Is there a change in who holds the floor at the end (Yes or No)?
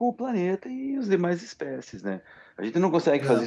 No